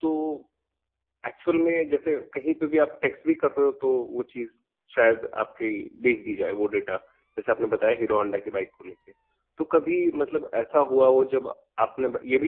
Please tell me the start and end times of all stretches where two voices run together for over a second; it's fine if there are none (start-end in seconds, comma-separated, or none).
none